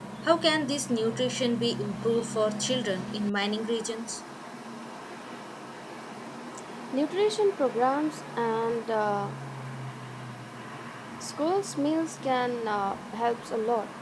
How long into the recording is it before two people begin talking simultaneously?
none

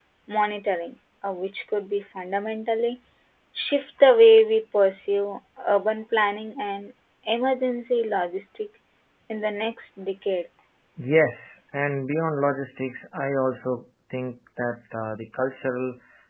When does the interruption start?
none

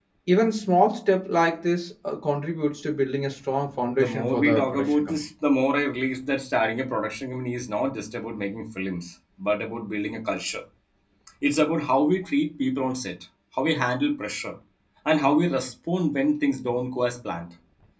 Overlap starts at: 3.9 s

